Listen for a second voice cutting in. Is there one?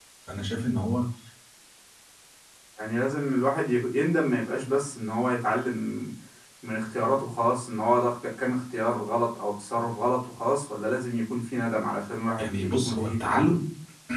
Yes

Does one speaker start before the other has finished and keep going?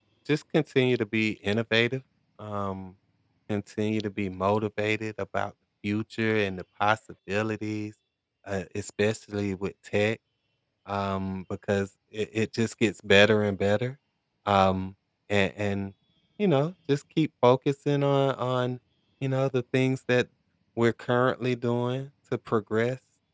No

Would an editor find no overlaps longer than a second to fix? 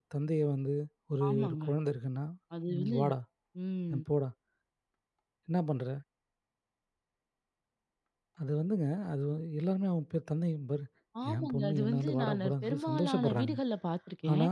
No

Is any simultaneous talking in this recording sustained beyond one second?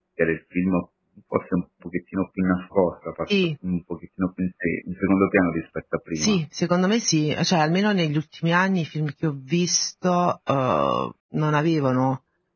No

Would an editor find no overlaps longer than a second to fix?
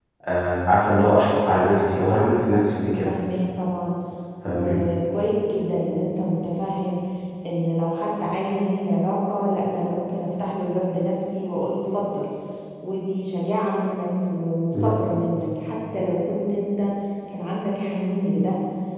Yes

